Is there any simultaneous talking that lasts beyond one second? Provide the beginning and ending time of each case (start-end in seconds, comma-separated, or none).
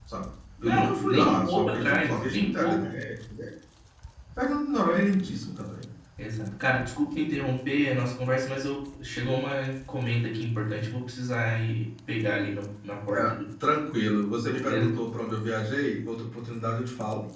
0.6-2.9